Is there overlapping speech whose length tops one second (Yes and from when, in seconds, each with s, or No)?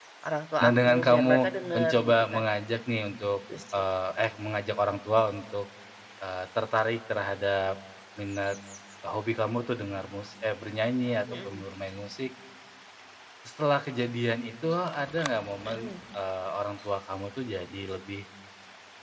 Yes, from 0.6 s